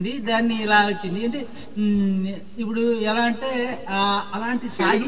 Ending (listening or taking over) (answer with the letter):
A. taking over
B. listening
A